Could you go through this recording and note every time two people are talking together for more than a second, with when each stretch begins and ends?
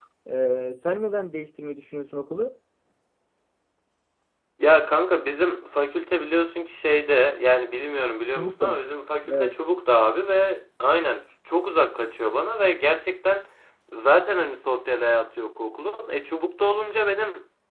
none

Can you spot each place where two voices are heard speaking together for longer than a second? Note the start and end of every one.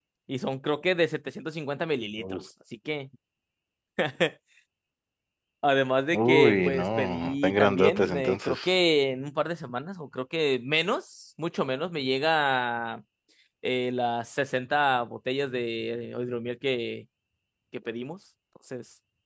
6.1-8.6

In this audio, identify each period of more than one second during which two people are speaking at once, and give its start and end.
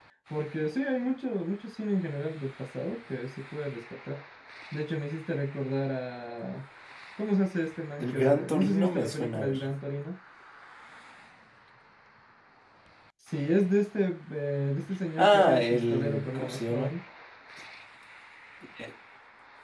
8.0-9.6, 15.2-16.9

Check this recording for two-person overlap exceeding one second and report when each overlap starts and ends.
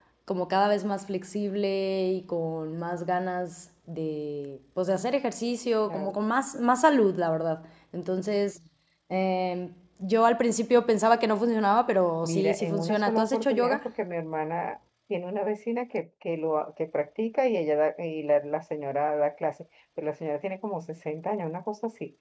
12.2-13.8

